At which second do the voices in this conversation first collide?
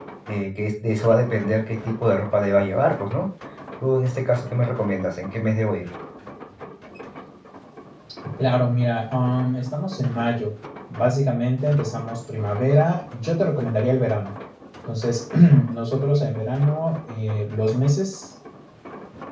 none

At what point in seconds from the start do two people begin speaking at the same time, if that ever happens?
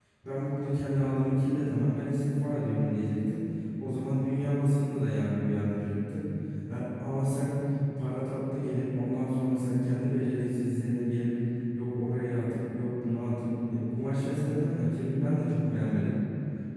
none

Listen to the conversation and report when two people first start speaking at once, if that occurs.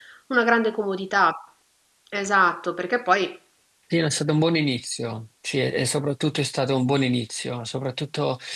none

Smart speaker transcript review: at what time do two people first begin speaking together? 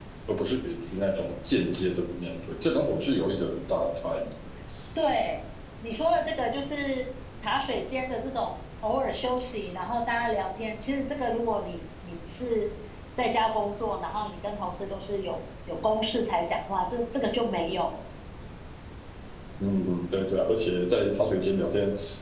none

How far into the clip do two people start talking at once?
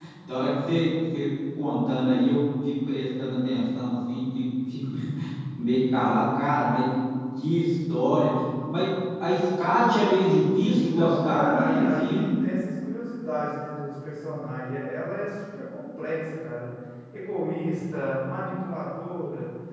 10.8 s

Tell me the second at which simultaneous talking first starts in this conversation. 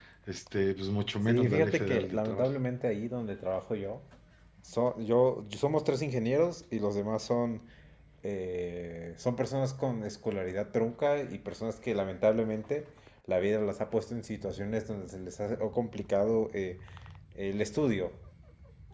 1.3 s

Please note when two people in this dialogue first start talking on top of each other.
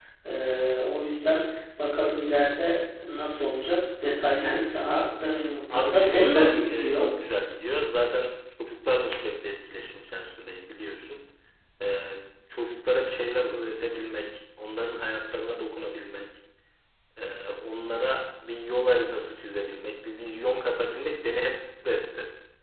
5.7 s

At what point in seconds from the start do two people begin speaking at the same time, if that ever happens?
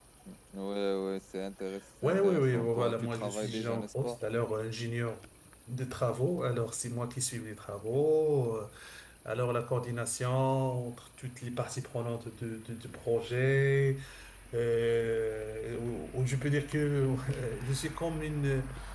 2.0 s

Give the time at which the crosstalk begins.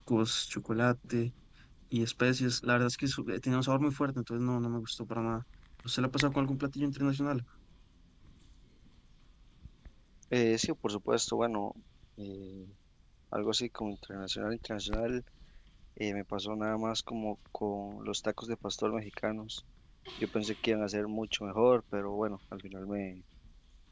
none

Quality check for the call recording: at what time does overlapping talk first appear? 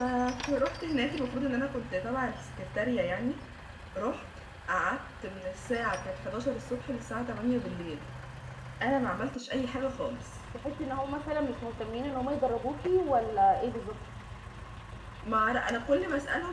none

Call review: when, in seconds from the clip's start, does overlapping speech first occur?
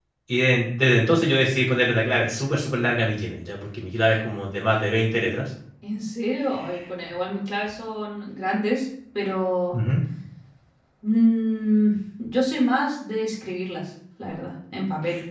none

